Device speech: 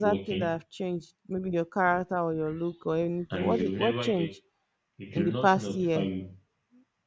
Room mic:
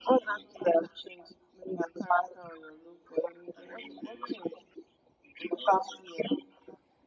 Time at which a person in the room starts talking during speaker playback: none

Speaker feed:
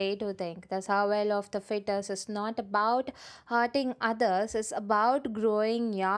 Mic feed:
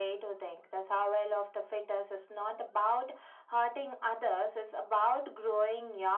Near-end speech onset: none

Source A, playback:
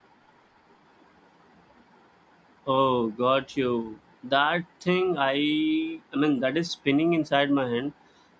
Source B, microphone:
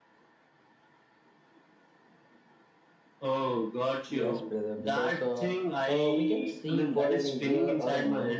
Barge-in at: 4.1 s

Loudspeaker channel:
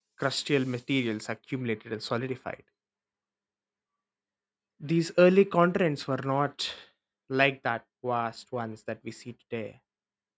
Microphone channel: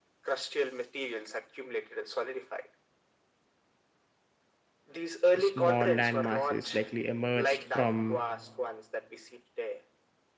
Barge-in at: 5.4 s

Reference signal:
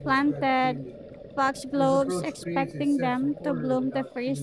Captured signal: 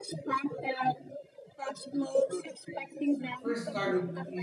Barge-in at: 3.4 s

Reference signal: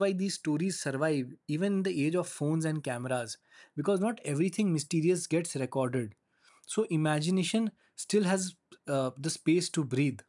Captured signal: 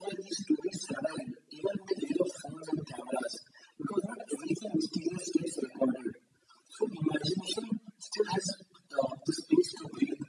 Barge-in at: none

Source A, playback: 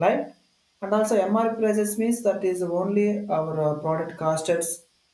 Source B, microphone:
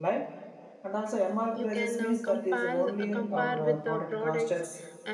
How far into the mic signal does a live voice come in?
1.5 s

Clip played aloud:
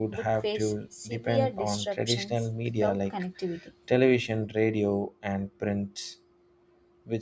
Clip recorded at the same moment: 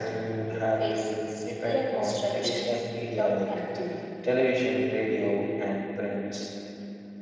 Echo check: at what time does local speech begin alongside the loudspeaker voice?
none

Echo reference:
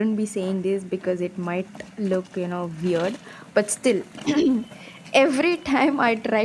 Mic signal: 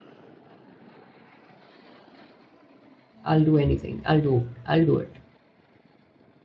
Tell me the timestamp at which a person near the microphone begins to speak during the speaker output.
3.2 s

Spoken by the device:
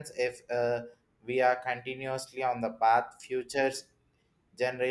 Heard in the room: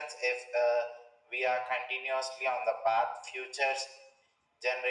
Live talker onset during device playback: none

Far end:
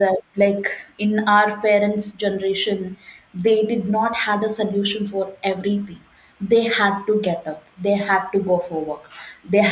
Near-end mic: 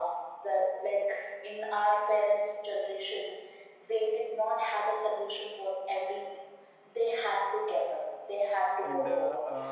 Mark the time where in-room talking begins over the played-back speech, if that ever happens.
8.8 s

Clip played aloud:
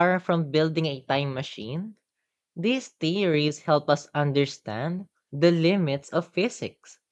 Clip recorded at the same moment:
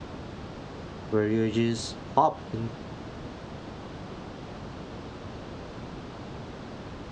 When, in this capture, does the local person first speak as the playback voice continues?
1.1 s

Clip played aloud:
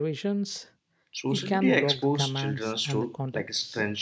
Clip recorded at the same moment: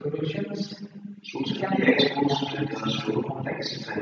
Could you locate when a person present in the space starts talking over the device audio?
none

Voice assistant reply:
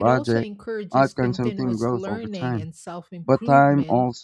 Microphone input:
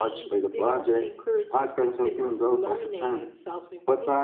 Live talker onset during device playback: none

